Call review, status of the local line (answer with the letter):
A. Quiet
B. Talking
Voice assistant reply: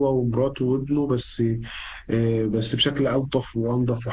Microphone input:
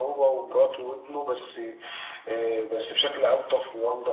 A